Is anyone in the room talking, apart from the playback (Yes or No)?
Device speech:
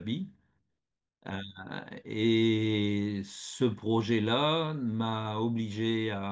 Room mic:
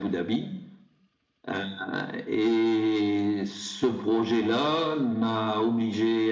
No